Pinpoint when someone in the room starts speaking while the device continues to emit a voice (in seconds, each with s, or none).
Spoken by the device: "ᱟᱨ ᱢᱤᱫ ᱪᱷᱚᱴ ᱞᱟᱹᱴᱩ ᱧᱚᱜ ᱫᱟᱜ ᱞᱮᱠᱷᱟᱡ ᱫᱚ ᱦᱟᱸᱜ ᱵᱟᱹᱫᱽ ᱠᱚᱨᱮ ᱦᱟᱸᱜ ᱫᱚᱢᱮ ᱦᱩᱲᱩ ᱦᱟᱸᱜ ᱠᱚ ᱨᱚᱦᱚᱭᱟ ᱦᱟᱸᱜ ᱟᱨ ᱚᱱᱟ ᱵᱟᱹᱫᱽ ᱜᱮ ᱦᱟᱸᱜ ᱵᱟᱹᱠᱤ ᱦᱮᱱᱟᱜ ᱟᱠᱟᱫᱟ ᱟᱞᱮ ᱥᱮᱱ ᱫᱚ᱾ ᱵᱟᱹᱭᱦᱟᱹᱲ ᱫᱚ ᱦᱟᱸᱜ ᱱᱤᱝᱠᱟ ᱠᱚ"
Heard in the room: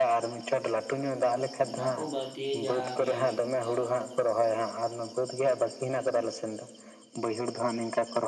1.7 s